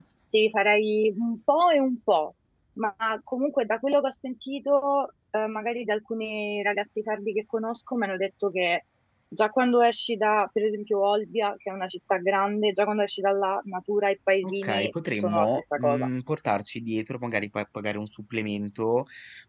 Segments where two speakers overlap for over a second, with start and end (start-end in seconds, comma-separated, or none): 14.4-16.1